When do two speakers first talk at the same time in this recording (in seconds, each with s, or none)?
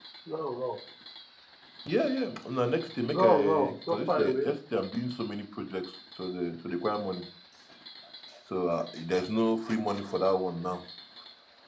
3.1 s